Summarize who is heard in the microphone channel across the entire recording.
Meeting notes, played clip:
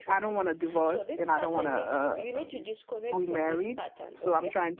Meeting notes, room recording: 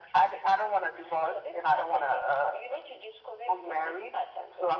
echo only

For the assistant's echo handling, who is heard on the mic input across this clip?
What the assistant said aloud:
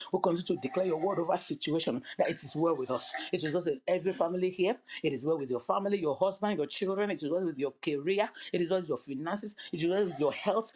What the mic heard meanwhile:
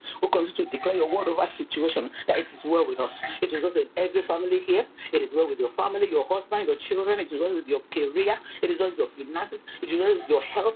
echo only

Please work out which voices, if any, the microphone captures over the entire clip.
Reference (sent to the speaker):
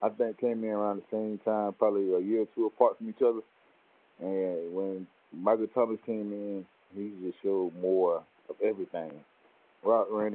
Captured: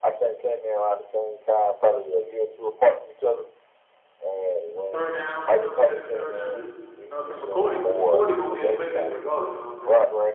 both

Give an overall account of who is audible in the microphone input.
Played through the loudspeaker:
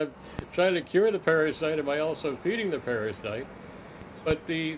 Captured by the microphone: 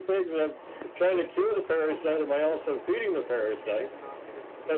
both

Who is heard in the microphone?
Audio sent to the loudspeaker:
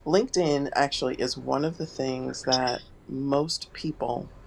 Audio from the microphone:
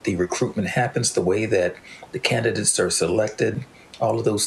user only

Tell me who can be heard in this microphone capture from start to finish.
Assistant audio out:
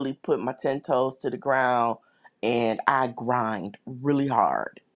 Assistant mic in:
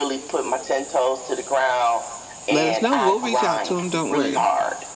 both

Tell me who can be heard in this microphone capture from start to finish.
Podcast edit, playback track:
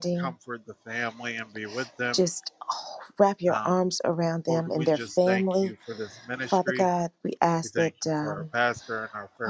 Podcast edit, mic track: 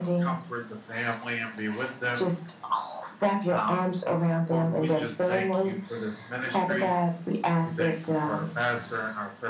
echo only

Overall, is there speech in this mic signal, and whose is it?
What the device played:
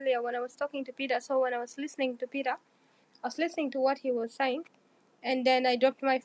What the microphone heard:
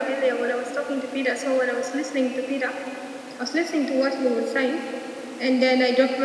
echo only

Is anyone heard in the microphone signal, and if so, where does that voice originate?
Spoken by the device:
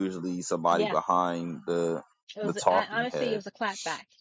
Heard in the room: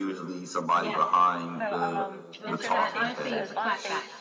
both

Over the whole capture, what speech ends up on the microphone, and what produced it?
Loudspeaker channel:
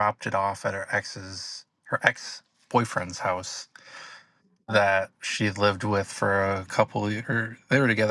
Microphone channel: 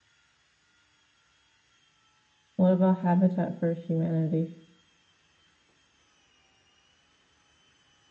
user only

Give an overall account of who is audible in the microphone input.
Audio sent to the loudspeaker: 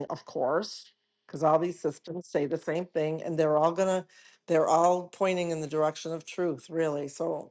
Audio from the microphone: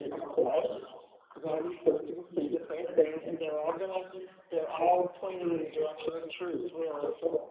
echo only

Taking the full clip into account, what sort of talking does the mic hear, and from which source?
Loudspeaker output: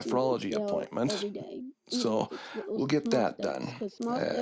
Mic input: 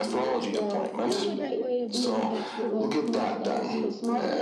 both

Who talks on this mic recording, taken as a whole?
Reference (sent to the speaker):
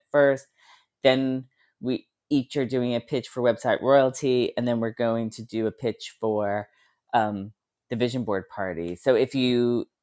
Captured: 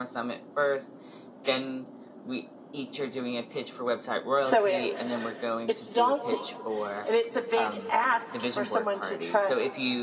both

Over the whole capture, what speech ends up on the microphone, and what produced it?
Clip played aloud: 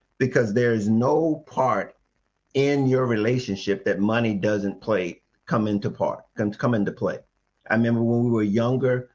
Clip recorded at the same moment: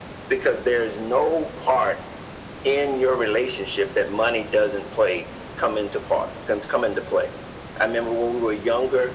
echo only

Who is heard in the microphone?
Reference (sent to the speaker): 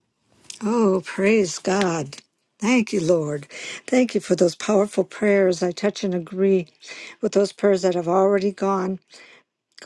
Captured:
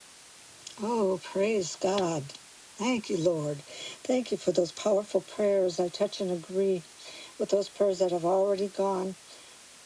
echo only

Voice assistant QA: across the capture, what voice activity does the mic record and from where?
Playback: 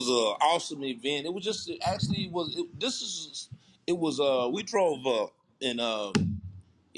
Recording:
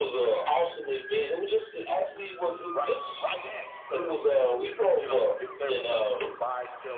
both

